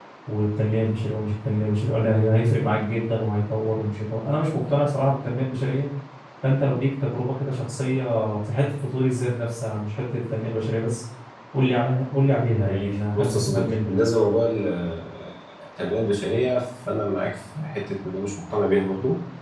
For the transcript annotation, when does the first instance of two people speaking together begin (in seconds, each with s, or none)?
12.6 s